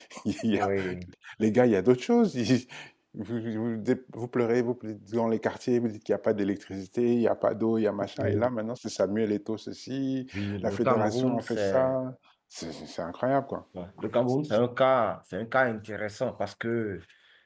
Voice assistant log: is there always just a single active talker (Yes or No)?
No